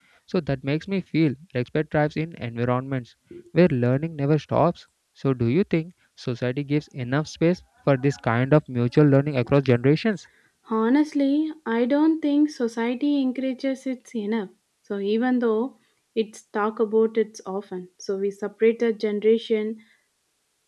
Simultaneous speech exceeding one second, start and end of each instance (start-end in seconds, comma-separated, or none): none